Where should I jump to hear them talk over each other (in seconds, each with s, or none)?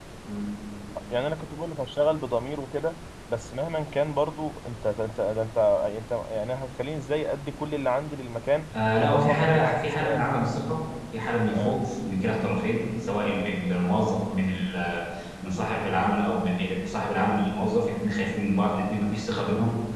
8.7 s